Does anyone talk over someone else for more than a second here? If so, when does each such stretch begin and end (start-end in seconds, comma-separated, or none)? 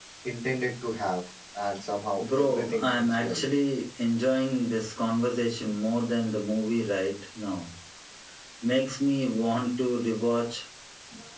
2.2-3.4